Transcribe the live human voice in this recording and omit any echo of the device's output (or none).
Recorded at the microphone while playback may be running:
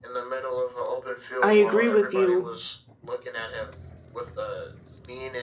I agree with you.